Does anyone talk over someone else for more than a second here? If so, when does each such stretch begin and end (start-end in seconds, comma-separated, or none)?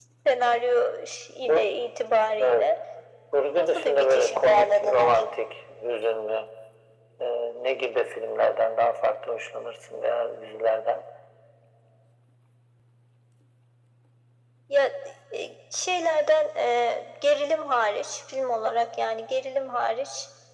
3.6-5.2